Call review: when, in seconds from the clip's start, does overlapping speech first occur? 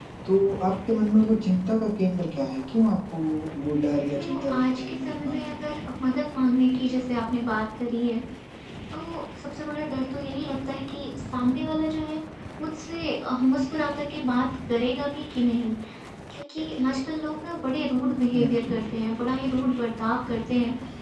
4.2 s

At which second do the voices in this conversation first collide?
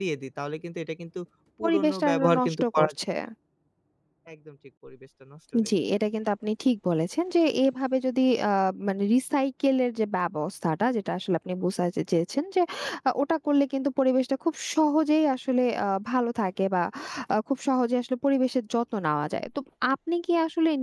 1.6 s

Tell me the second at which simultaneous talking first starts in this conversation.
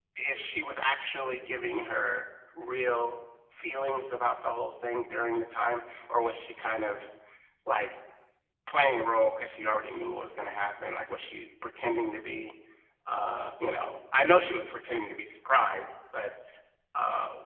none

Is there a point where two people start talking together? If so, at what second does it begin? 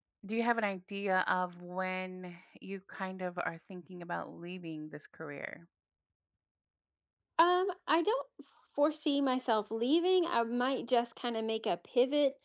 none

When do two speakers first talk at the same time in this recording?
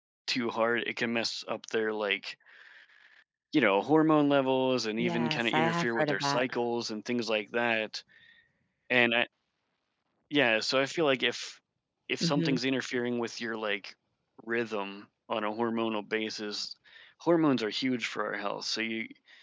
5.0 s

